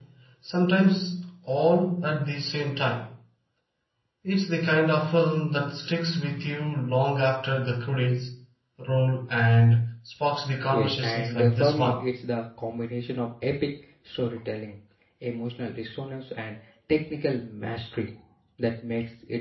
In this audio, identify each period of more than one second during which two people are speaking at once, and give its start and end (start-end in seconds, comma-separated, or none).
10.7-12.0